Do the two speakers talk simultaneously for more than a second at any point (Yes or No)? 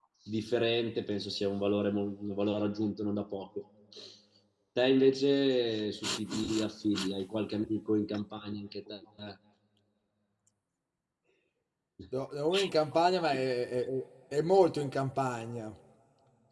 No